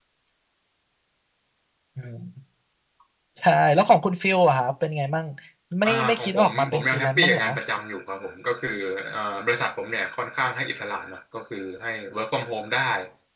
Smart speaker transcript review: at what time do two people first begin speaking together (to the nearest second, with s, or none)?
6 s